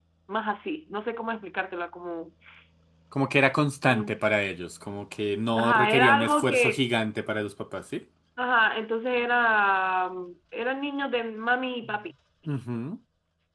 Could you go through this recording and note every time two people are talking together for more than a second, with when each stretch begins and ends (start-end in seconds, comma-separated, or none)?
5.5-6.8